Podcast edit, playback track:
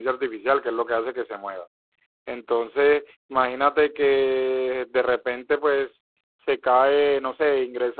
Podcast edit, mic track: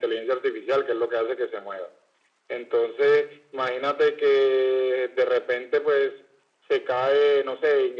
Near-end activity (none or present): none